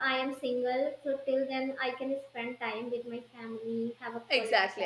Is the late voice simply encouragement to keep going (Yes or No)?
No